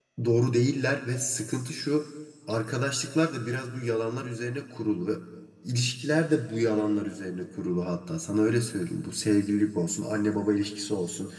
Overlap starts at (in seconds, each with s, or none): none